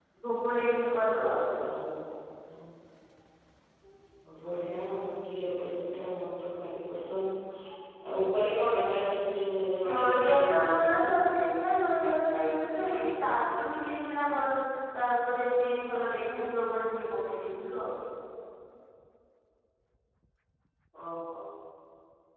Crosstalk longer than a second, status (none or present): present